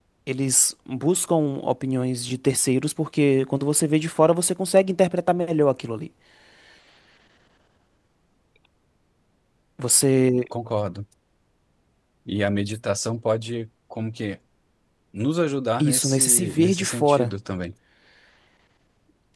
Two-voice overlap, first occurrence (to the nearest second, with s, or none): 16 s